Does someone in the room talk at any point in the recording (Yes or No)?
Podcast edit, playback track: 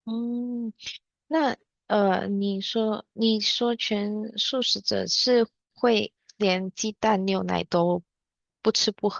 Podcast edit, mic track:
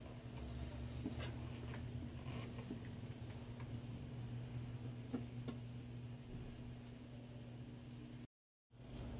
No